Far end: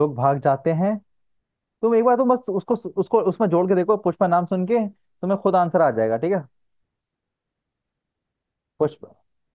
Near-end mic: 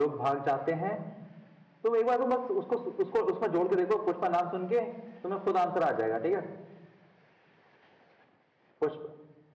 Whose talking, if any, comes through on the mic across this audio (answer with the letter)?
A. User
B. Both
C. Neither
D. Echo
D